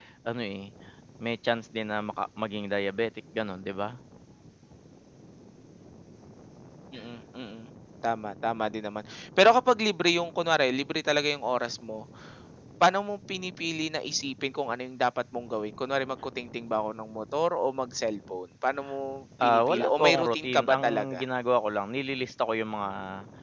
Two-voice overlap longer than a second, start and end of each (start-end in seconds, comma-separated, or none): 19.4-21.2